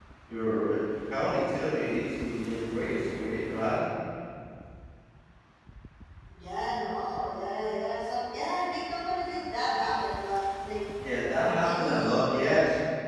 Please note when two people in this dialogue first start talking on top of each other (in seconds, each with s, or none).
11.4 s